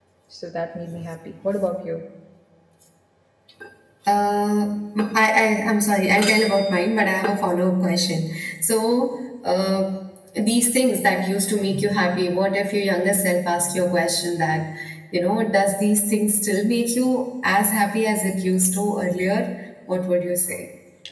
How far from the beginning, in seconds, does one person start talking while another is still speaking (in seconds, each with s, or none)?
none